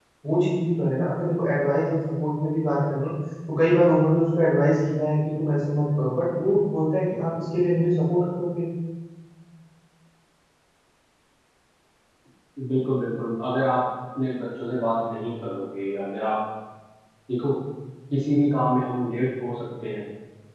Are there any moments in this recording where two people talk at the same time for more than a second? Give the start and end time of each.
none

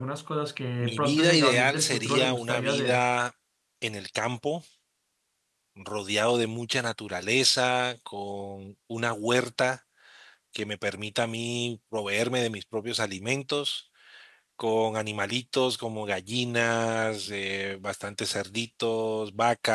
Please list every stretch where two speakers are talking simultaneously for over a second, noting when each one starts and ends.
0.8-3.1

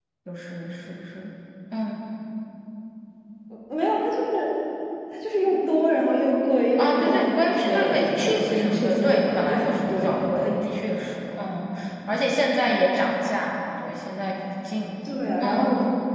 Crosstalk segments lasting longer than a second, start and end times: 6.8-10.5

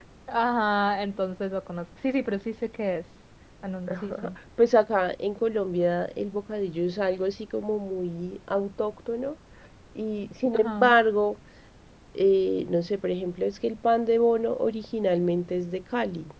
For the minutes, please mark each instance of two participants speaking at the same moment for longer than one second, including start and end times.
none

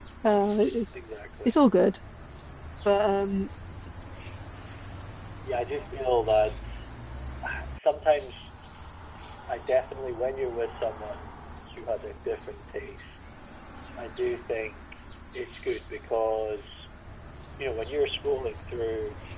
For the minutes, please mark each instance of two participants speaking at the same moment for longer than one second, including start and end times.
none

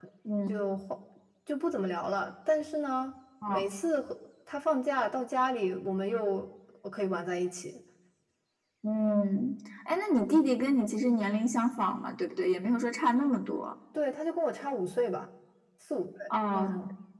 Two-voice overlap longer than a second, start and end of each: none

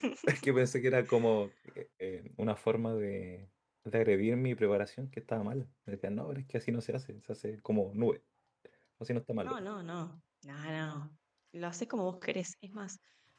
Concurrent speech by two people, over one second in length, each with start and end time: none

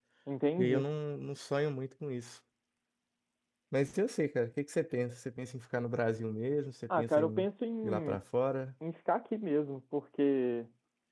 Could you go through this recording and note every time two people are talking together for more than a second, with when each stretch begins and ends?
none

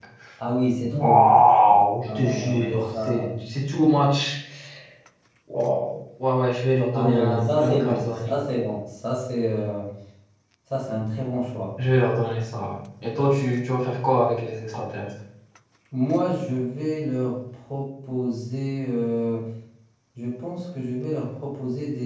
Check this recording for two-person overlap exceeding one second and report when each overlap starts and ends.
2.0-3.3, 6.9-8.3

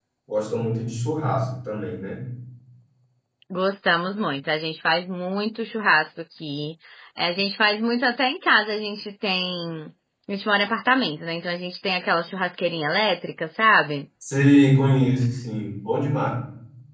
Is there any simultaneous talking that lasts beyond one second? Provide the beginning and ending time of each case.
none

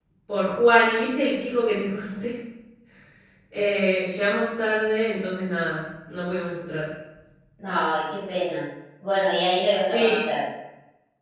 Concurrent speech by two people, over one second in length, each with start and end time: none

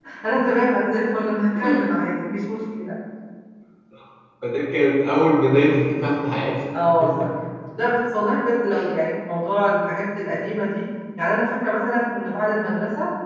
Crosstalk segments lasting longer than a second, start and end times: none

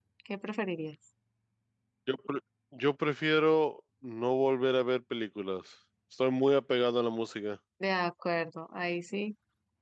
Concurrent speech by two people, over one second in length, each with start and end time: none

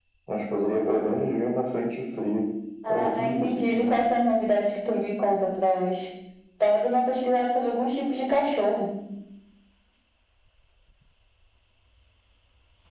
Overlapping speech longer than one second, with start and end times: 2.9-4.1

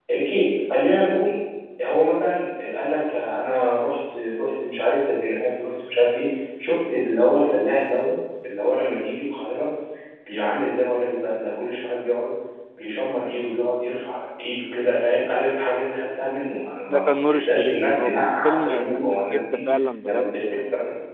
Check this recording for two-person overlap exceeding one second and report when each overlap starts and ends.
16.9-19.6

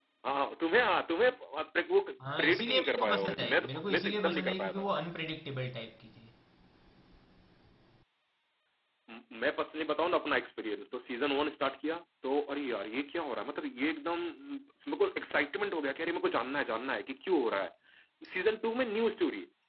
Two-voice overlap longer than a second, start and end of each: 2.4-4.8

